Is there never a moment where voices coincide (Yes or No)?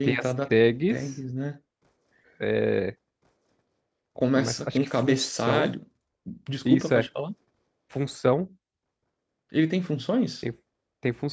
No